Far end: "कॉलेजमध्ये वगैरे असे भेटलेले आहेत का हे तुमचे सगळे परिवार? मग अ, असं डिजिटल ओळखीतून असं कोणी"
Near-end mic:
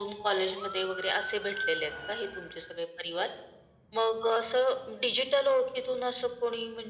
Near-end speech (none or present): none